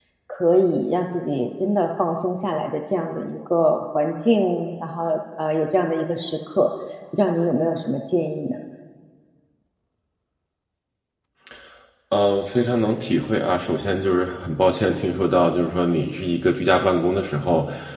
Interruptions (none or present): none